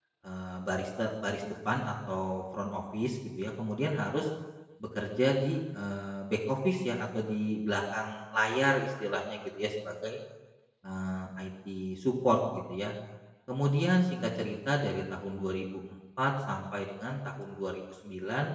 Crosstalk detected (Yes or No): No